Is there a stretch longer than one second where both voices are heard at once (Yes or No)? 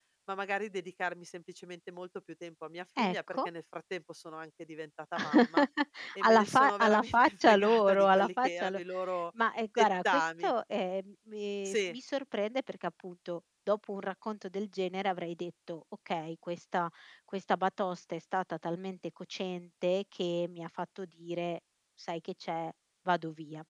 Yes